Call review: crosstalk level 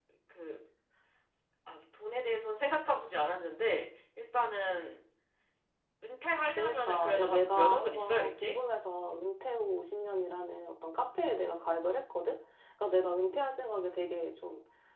present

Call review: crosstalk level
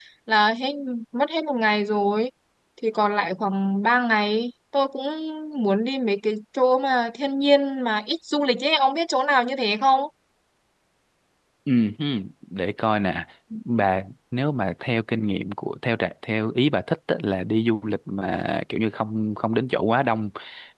none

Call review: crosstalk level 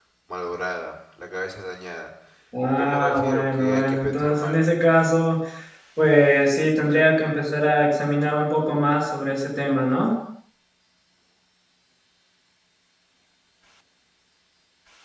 present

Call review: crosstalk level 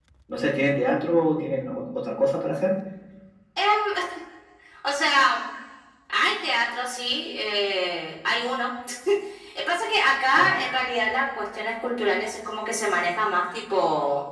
none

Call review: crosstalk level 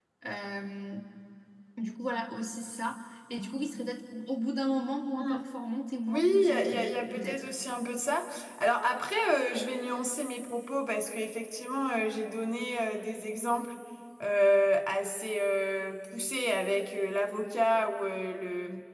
present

